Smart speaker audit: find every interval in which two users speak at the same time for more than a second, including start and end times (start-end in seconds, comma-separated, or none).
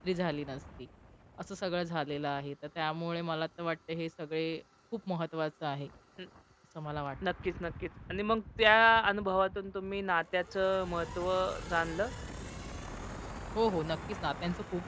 none